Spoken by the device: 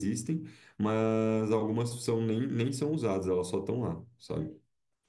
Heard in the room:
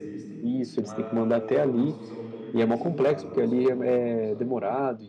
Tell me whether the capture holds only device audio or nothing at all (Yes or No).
No